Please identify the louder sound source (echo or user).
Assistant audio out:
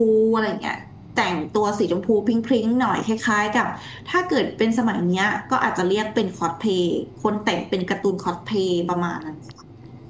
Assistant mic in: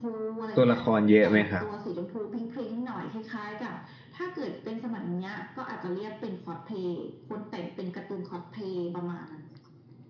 user